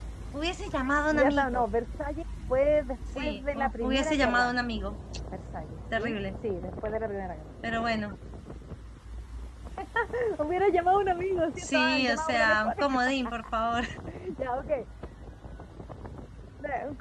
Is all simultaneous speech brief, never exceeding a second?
No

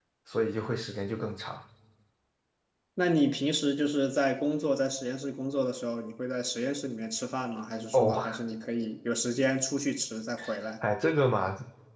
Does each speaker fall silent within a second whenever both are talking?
Yes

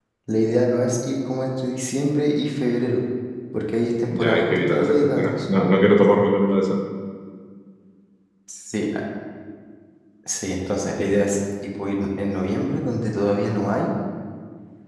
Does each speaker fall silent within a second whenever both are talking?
No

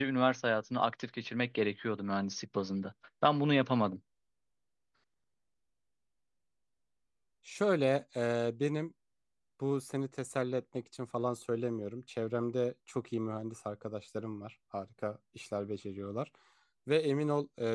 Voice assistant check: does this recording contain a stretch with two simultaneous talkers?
No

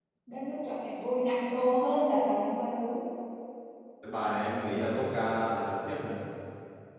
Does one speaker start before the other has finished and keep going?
No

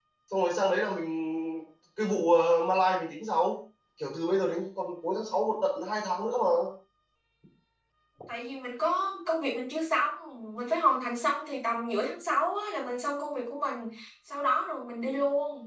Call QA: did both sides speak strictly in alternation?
Yes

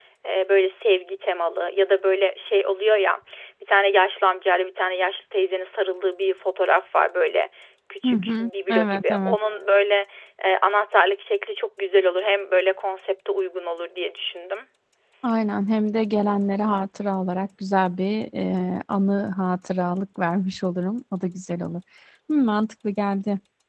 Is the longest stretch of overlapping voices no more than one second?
No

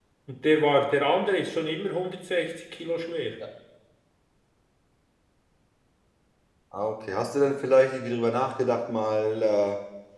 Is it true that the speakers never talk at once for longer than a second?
Yes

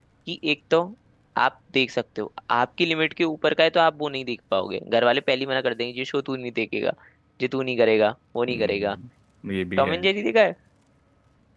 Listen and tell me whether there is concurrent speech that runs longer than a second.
No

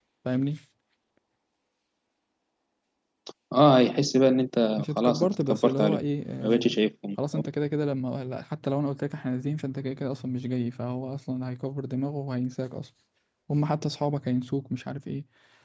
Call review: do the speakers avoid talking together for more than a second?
No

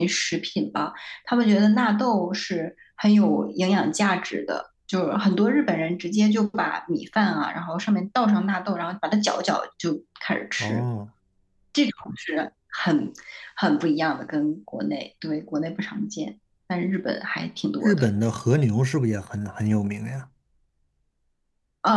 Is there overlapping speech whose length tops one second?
No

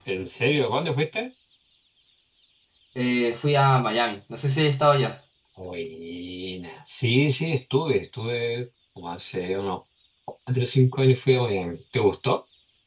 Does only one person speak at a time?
Yes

